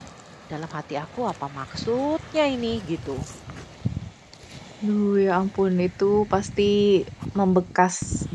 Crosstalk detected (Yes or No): No